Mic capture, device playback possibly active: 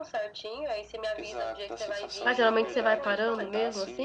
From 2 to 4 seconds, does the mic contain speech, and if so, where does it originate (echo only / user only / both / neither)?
both